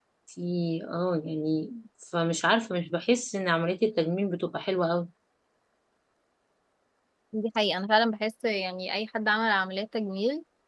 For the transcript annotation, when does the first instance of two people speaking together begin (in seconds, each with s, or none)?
none